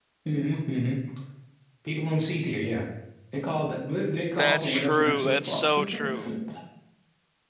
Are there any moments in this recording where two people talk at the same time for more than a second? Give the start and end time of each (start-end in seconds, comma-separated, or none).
4.4-6.3